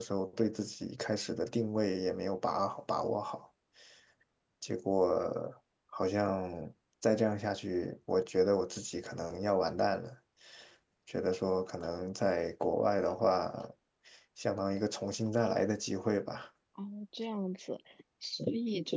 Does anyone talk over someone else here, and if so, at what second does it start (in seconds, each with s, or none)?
none